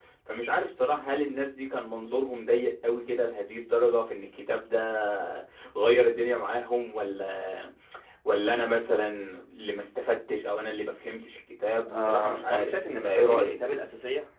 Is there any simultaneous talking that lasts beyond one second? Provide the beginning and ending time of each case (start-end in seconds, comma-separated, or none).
11.9-13.5